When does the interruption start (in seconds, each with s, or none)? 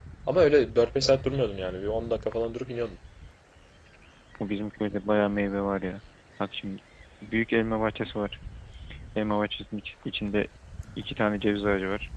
none